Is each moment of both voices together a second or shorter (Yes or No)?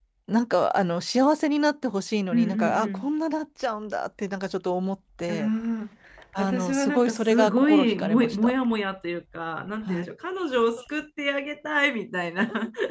No